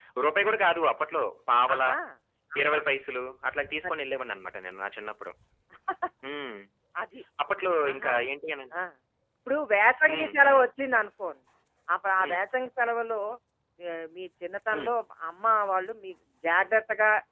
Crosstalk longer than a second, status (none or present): none